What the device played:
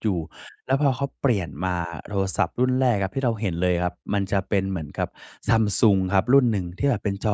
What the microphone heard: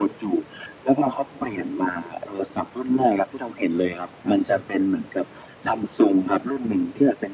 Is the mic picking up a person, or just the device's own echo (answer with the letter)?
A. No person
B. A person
B